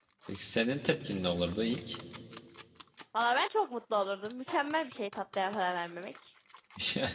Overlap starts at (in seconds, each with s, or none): none